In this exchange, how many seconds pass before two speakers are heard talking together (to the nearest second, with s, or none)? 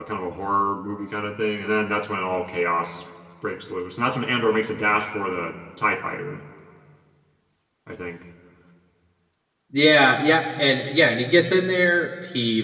none